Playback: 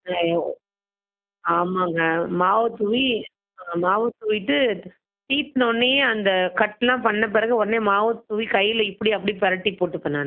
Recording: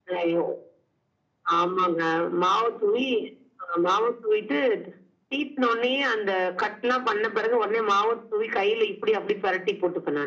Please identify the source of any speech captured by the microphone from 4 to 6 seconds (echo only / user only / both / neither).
echo only